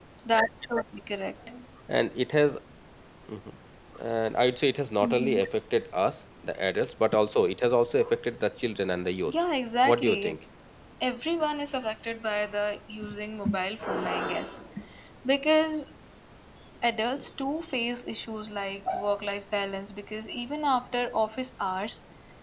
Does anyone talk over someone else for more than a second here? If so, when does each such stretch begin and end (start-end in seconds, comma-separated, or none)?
none